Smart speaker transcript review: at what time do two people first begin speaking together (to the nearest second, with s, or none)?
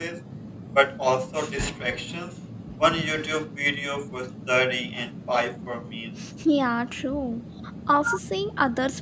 none